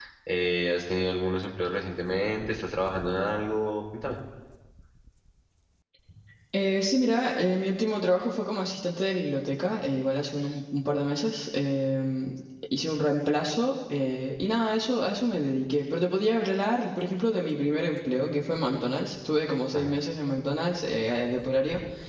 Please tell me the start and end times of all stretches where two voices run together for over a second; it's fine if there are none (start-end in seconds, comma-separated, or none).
none